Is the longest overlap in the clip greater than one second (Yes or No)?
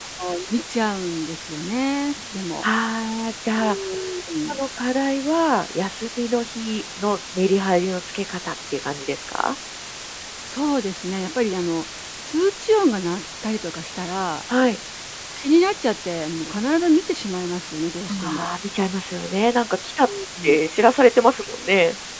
No